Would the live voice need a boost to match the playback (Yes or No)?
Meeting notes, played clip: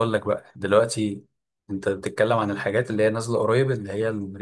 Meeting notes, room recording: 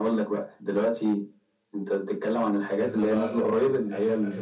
Yes